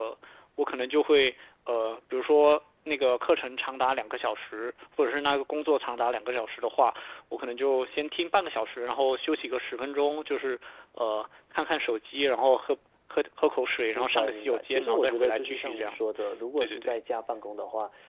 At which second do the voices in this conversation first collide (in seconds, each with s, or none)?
14.0 s